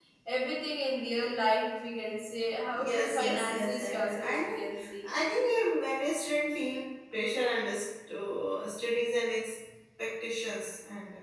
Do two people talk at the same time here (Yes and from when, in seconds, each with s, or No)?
Yes, from 2.7 s